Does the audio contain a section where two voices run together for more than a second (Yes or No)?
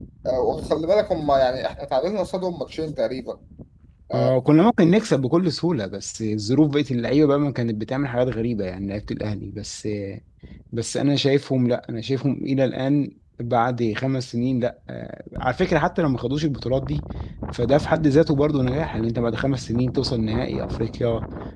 No